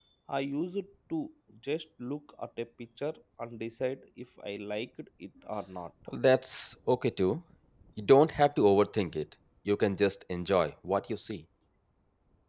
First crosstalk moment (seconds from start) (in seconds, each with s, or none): none